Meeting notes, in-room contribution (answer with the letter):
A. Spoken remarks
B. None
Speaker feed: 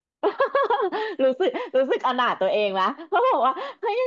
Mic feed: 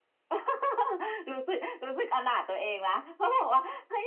B